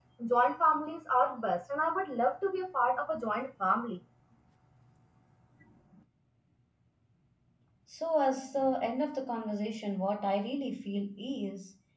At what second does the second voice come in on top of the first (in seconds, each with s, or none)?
none